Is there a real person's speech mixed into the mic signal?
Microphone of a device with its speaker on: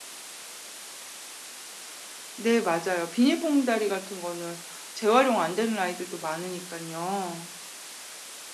Yes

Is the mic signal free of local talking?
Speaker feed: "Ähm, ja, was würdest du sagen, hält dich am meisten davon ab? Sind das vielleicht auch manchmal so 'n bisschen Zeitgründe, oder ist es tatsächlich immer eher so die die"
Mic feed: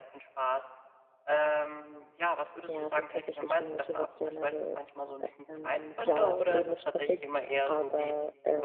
No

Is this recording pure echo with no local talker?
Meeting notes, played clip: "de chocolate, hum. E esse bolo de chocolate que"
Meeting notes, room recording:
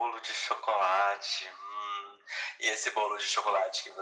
Yes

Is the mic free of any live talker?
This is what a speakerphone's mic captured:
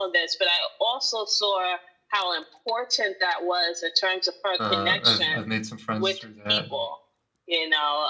No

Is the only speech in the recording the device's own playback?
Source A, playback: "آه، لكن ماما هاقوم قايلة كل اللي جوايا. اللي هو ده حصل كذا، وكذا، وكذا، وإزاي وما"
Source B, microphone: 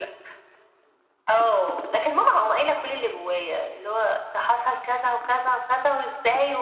Yes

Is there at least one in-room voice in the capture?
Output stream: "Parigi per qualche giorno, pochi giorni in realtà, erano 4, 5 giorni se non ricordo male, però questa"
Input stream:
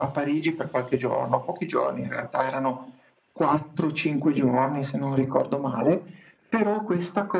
No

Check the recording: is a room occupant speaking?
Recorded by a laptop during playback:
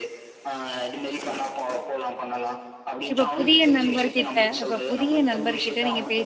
Yes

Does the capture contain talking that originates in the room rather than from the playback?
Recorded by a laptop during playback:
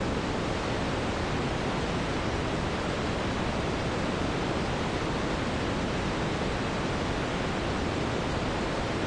No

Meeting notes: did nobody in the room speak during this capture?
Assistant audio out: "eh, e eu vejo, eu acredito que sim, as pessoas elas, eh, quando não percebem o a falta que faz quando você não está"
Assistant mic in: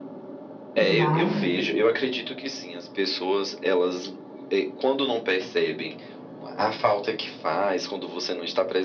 No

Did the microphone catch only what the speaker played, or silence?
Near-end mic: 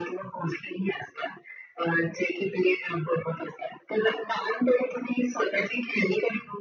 Yes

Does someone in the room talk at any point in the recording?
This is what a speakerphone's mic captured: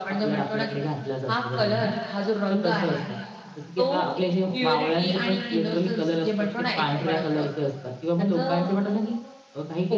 Yes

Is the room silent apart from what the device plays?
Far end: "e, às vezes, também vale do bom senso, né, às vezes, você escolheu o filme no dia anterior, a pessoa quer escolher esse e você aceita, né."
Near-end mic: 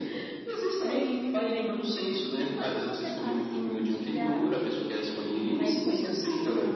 No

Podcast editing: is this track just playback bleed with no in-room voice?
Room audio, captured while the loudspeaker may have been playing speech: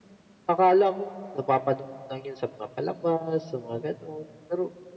Yes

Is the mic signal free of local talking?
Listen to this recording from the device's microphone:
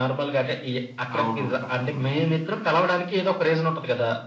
No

